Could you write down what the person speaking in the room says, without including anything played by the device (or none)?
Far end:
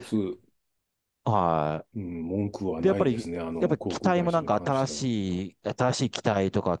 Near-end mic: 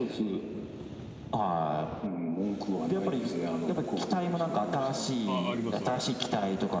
あ、あります、あります。